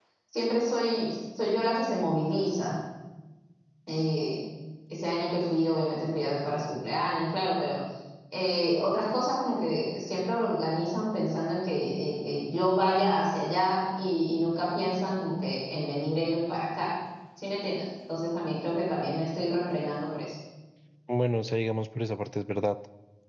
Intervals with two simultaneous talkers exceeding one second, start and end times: none

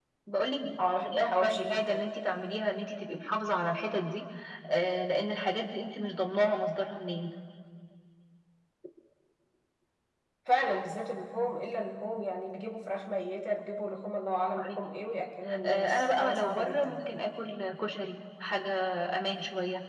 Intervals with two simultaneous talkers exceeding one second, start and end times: 0.8-2.1, 15.7-17.1

